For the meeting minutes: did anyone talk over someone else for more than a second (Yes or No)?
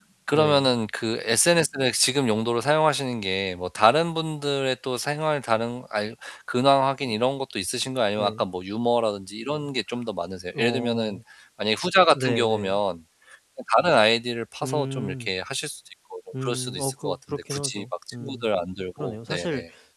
Yes